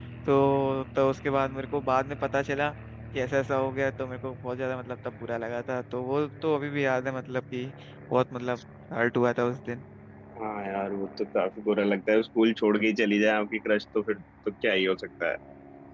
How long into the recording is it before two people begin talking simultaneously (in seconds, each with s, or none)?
none